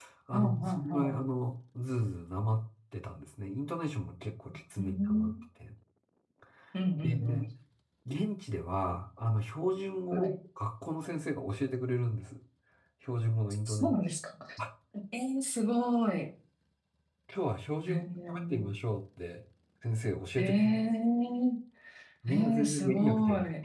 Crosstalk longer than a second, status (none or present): present